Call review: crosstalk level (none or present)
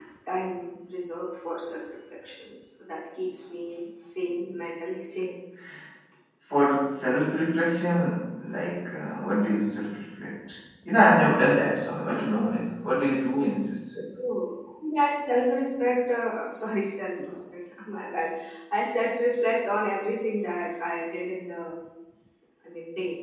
none